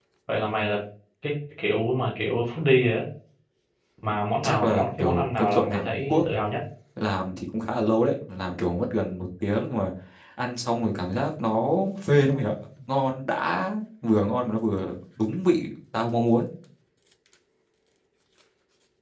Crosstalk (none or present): present